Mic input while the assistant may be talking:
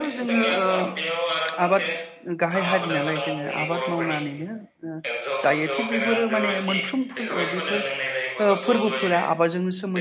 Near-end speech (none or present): present